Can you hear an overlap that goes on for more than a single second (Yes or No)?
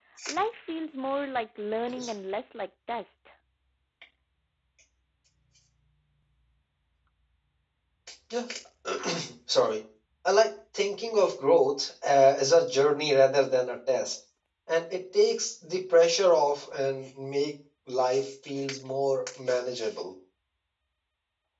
No